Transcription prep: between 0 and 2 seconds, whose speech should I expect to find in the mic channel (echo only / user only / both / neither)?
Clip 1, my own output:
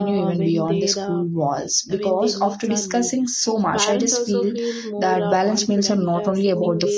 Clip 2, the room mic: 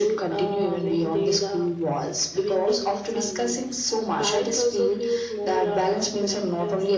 echo only